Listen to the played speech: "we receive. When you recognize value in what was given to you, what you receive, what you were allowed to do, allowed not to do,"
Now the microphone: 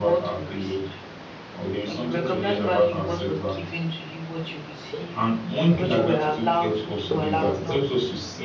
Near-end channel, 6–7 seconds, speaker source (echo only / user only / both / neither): both